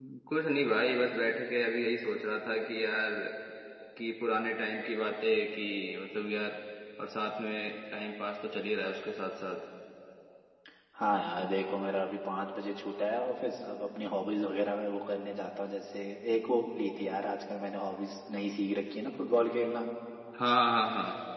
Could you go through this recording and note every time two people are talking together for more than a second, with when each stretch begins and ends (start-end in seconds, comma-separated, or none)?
none